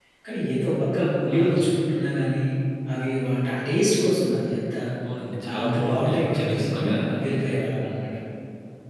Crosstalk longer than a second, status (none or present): present